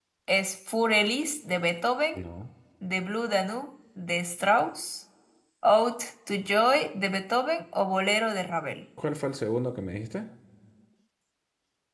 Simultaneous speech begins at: none

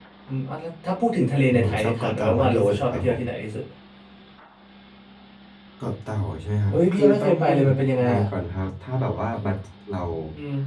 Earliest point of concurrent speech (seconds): 2 s

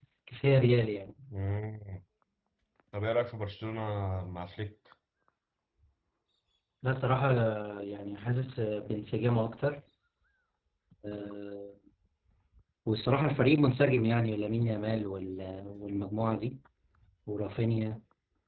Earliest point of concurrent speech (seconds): none

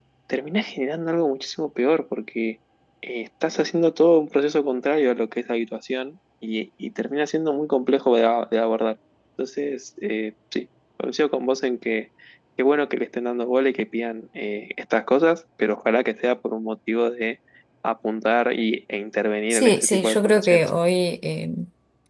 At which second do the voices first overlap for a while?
20 s

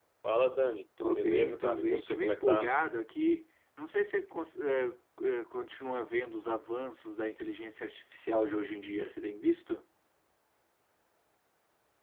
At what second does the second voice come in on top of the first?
1 s

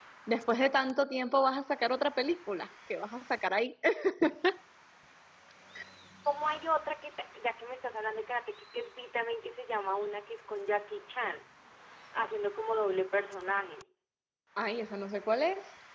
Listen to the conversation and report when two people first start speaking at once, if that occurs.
none

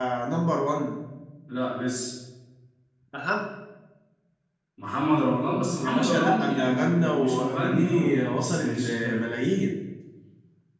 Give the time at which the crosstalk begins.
6 s

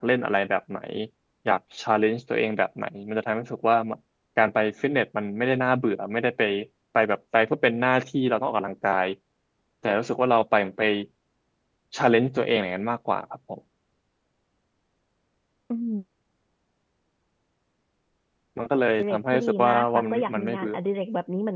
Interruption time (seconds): 19 s

